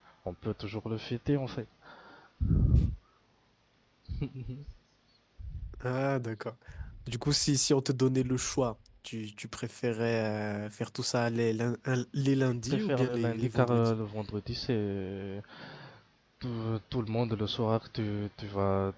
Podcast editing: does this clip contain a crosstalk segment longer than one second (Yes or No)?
Yes